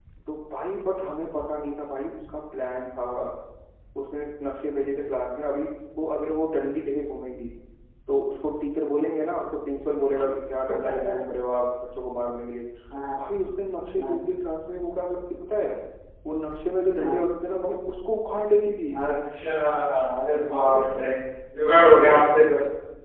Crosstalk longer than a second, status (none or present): none